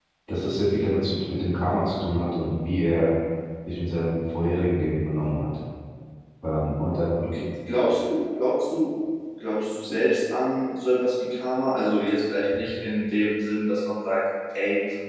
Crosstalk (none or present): none